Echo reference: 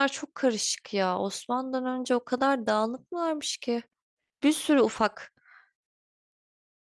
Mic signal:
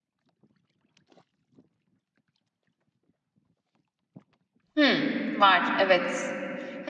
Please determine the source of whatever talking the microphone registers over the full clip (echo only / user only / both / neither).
user only